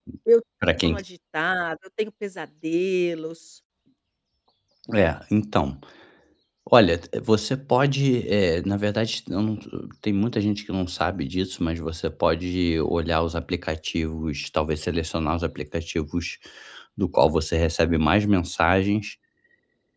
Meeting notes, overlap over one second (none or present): none